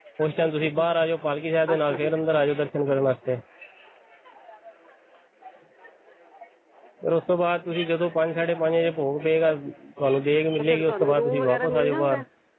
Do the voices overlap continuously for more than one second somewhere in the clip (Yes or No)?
Yes